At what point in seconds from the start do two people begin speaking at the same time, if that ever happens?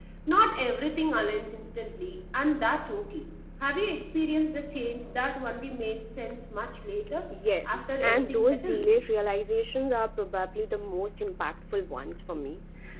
7.7 s

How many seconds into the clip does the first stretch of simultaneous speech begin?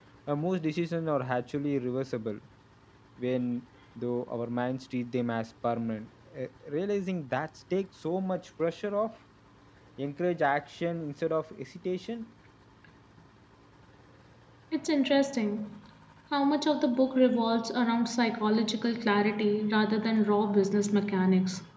none

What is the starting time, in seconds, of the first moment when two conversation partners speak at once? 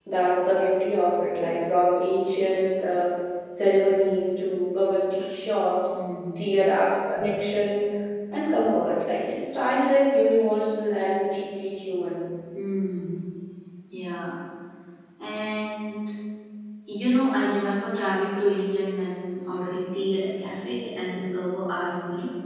none

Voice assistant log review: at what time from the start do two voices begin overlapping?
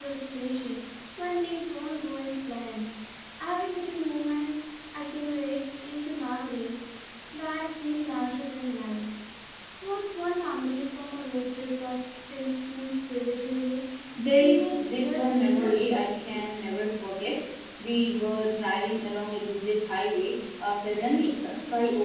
14.4 s

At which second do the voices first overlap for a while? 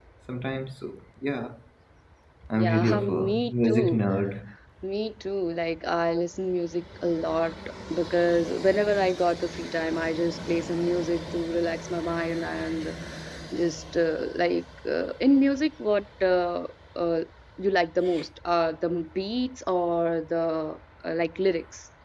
2.6 s

